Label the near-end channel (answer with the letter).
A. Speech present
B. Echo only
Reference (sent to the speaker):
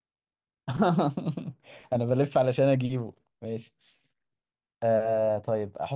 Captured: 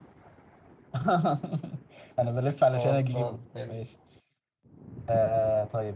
A